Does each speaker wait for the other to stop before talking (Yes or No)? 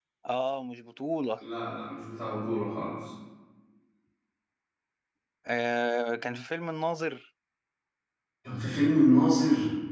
Yes